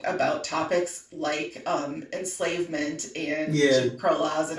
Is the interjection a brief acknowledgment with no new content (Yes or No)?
Yes